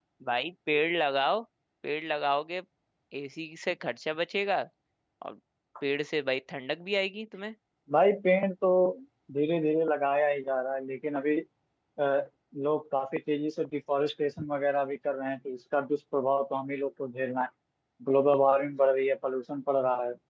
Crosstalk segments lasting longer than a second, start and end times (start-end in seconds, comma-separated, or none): none